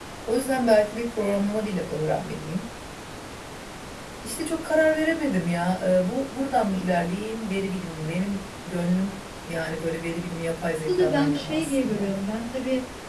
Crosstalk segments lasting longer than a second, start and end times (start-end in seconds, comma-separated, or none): 10.9-12.1